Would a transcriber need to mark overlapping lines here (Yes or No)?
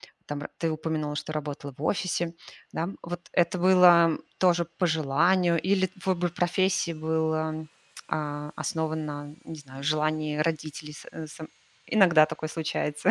No